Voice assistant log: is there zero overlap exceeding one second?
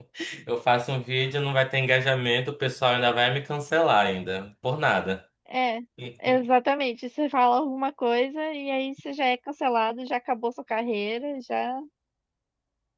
Yes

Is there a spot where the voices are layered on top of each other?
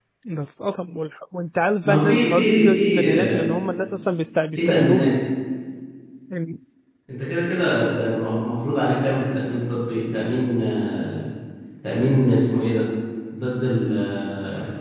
Yes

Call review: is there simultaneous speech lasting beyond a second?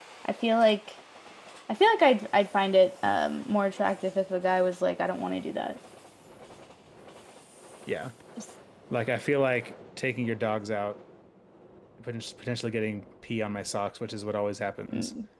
No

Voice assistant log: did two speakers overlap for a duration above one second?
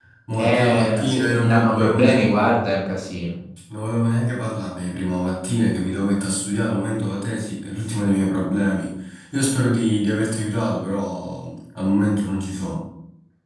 Yes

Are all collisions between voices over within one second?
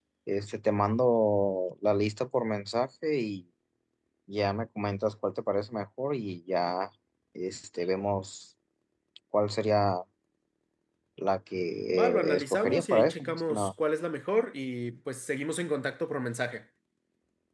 No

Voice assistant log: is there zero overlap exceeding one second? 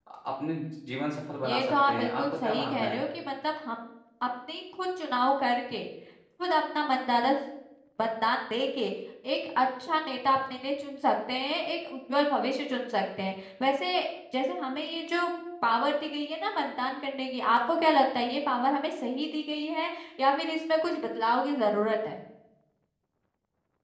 No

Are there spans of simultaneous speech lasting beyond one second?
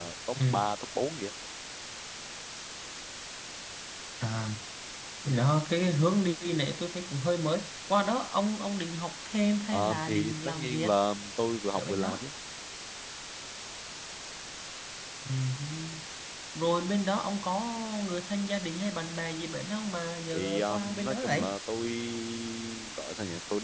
Yes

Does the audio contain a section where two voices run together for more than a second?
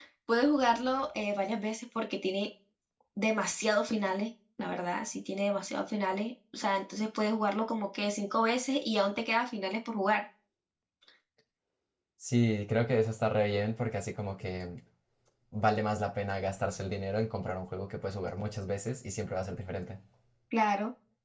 No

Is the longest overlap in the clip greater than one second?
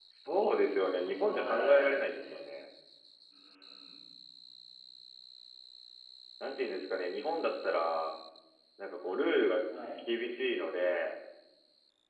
Yes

